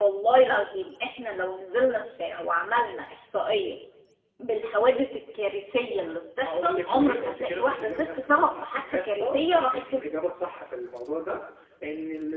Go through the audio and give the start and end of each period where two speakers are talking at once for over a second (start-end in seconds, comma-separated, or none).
6.4-10.0